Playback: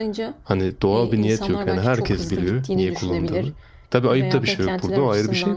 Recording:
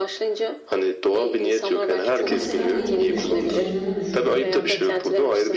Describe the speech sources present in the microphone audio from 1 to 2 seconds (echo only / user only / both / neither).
echo only